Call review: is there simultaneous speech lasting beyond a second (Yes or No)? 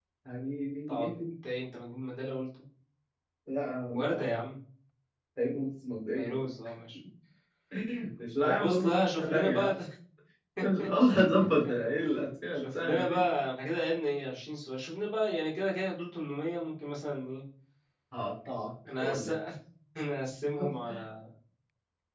Yes